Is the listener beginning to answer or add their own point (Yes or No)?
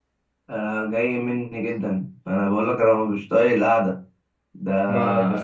No